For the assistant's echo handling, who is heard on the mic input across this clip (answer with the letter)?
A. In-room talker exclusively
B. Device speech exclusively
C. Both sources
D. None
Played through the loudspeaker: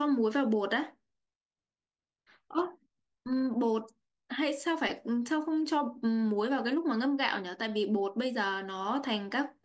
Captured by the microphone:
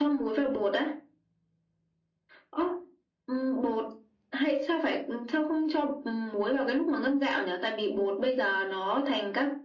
B